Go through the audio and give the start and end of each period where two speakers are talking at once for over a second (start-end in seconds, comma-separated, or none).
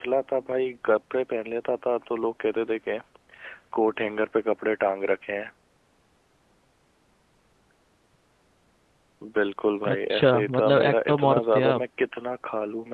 9.9-11.8